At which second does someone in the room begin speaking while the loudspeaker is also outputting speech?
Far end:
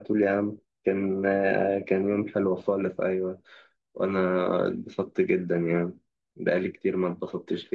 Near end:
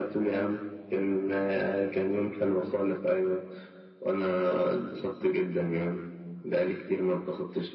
none

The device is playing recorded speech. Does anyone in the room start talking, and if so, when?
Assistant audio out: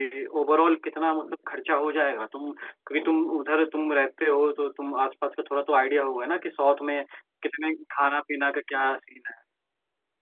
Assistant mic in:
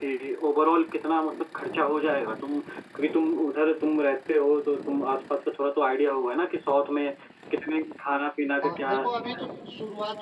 8.6 s

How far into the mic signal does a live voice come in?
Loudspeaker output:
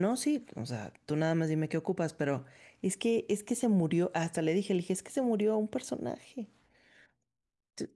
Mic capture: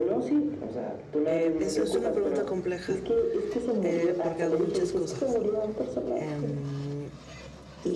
1.2 s

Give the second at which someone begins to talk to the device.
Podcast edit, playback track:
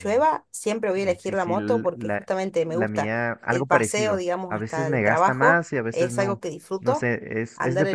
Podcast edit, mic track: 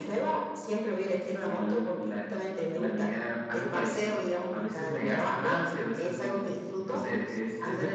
6.8 s

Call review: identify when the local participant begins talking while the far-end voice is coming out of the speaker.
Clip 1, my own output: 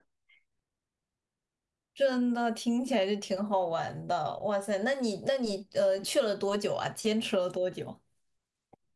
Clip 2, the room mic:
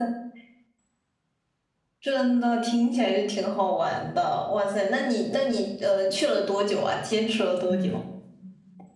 7.7 s

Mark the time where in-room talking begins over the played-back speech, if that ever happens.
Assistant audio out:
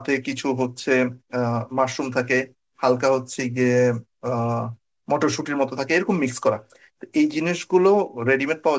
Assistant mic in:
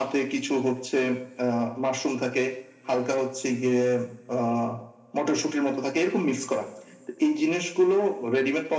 none

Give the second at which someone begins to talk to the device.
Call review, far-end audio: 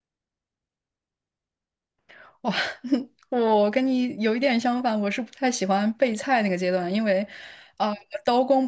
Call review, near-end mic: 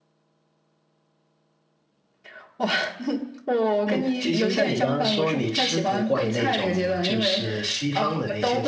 3.9 s

